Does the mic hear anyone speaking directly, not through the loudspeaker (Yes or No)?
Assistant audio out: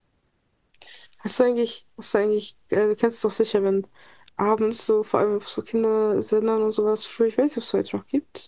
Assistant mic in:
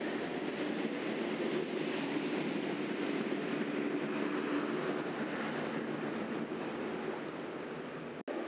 No